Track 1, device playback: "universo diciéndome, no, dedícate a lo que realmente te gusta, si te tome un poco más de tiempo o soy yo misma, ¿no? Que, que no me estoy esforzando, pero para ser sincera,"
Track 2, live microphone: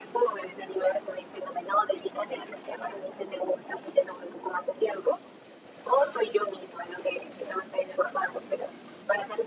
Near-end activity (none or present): none